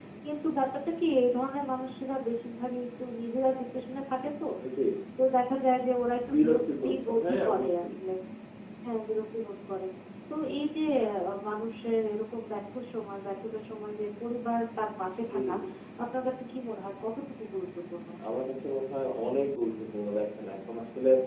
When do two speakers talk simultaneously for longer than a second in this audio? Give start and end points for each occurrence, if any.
6.3-7.8

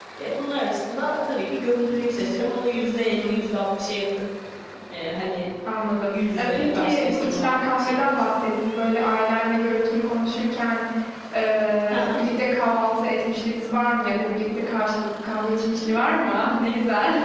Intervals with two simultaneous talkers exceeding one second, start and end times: 6.1-8.1

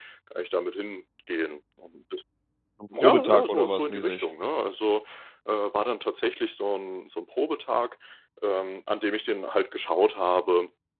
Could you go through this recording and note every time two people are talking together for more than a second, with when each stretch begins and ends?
3.0-4.3

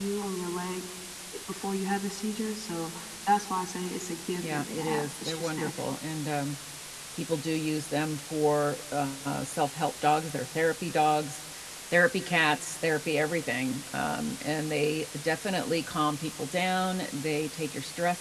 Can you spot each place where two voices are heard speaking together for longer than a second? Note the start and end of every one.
4.4-6.0

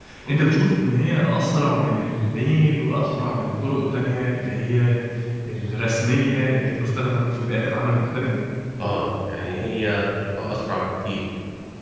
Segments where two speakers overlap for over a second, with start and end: none

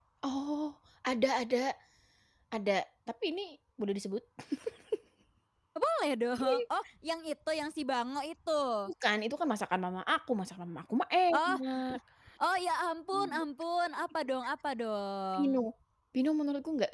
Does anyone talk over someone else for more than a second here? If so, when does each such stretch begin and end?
none

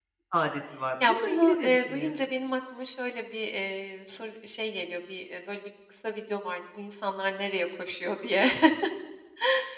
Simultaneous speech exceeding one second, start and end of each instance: 1.0-2.3

